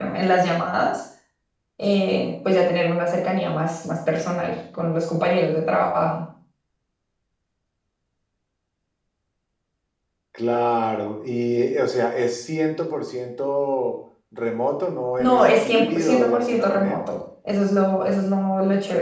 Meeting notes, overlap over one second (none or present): present